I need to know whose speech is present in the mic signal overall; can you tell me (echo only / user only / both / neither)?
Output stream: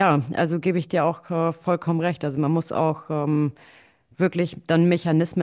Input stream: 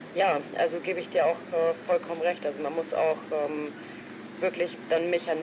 echo only